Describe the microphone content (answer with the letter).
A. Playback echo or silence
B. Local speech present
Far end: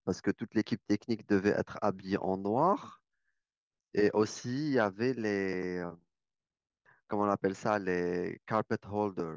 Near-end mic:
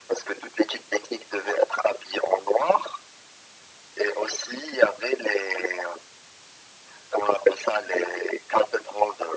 A